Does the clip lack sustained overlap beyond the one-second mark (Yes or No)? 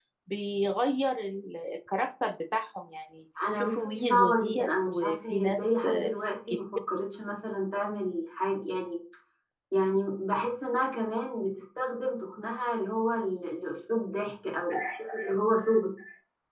No